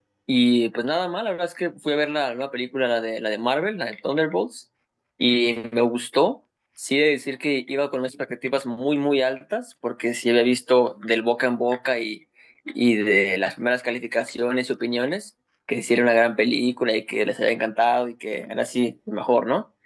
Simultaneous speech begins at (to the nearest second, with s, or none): none